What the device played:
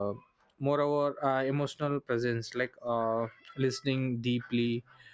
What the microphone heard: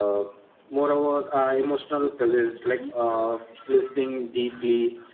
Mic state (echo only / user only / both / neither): both